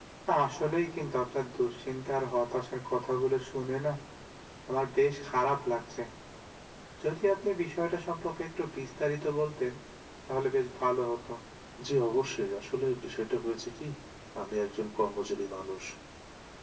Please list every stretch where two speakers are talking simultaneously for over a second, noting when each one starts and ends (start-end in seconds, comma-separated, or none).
none